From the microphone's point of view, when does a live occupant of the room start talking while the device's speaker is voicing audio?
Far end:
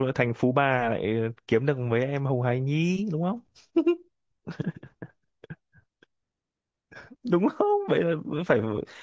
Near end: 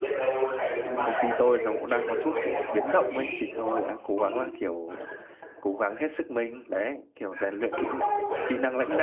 1.0 s

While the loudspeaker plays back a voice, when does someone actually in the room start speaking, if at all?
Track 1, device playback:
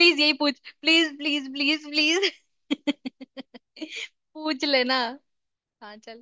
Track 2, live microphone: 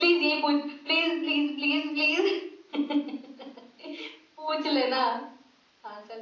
none

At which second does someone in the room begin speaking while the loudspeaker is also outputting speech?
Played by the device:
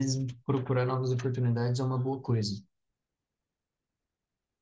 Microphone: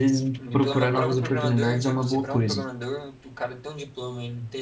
0.4 s

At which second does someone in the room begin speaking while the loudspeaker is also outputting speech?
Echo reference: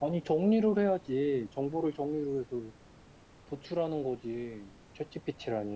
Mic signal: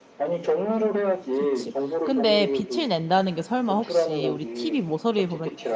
1.3 s

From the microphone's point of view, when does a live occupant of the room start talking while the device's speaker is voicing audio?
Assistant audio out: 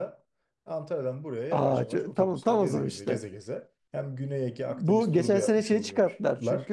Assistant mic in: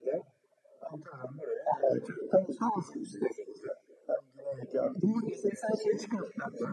none

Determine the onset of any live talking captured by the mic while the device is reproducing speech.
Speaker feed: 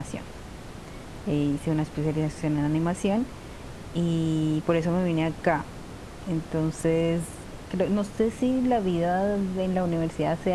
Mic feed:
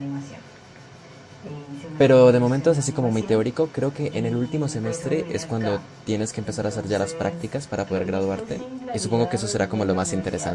2.0 s

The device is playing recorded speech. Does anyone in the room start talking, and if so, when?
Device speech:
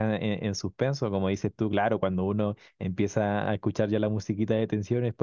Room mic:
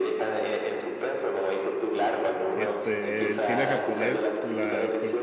2.5 s

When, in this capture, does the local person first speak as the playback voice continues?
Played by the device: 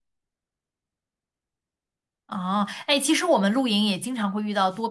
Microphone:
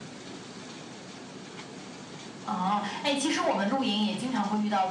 none

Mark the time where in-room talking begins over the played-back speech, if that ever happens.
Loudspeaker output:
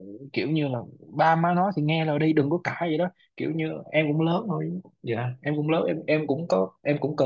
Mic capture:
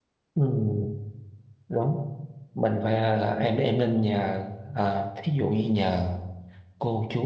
0.3 s

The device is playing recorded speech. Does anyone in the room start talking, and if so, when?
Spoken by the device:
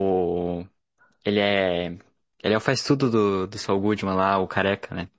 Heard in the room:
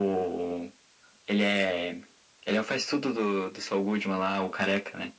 none

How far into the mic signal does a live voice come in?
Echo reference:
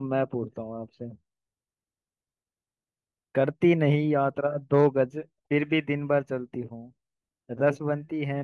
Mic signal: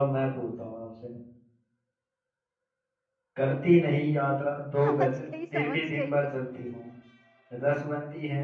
4.9 s

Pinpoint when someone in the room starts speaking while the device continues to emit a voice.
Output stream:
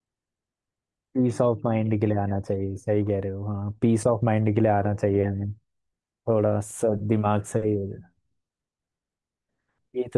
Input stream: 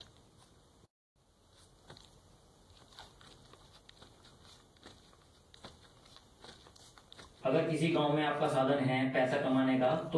7.4 s

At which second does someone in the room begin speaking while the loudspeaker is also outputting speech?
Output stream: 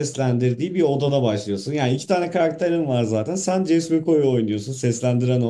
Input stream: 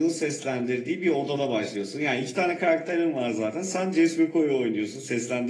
none

